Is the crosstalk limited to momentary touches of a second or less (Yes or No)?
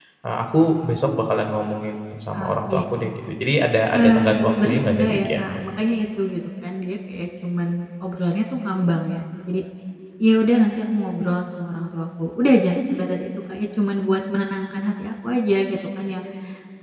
No